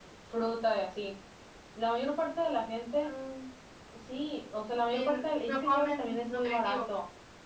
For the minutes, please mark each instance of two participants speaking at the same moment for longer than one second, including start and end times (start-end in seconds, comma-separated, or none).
4.9-6.8